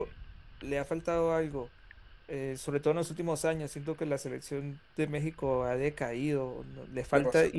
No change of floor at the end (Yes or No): Yes